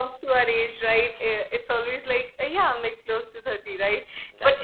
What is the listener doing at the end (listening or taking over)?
listening